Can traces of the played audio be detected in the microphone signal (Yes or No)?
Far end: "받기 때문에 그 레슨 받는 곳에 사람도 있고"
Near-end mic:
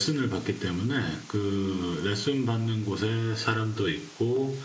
Yes